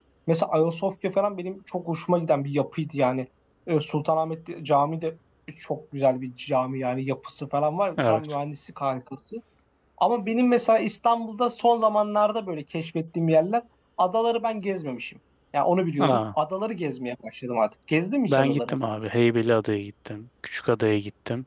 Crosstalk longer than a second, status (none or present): none